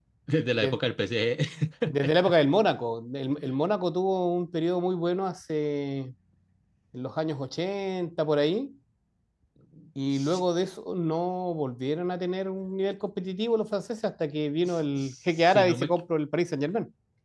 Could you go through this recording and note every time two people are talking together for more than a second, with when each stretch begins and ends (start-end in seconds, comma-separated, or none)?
14.7-15.9